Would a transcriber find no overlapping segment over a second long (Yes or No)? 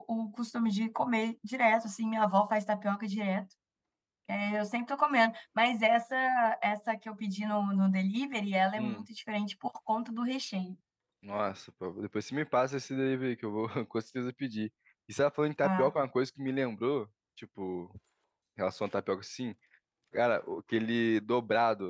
Yes